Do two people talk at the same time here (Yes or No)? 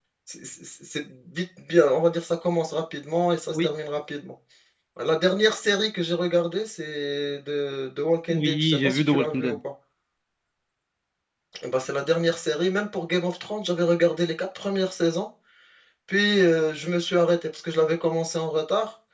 Yes